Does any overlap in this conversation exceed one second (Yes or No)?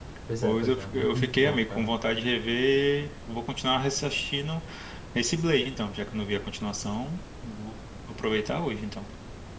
Yes